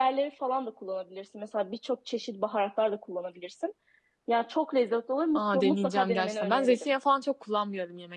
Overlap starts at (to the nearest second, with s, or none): 5 s